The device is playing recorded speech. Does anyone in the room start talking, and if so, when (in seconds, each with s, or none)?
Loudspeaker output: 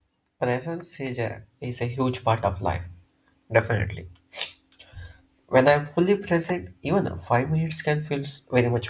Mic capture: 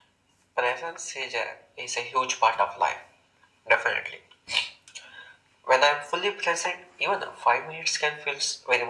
none